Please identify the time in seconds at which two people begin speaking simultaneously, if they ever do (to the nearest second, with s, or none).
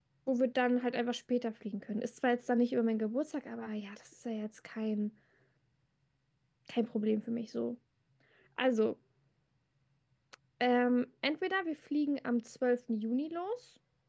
none